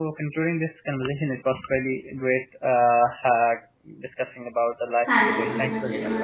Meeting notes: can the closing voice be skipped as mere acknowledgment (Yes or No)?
No